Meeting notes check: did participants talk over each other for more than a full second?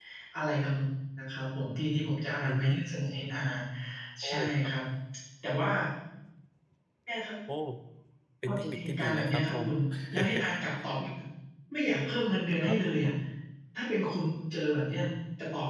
Yes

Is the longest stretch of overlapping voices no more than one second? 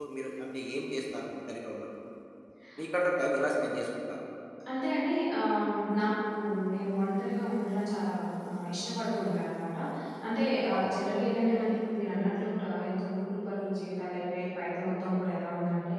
Yes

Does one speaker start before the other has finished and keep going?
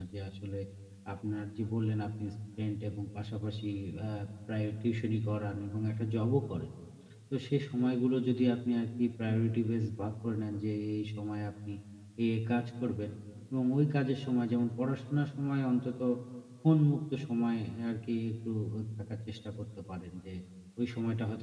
No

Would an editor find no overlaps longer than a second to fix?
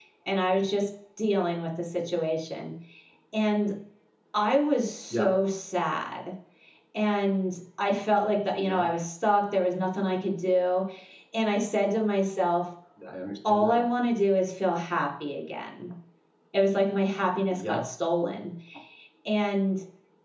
Yes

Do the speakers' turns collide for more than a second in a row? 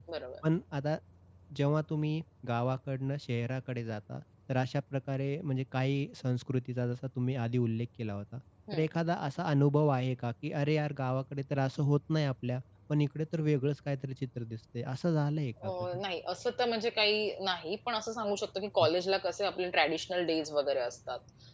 No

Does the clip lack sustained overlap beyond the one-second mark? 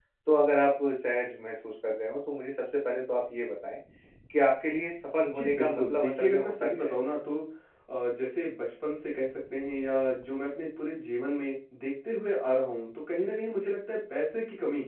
No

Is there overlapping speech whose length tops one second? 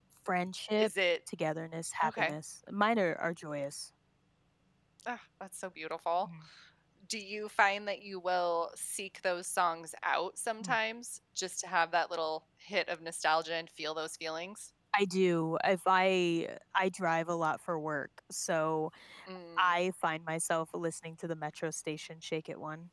No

